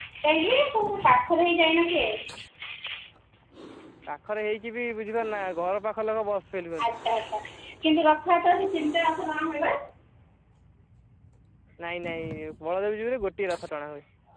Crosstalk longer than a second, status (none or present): none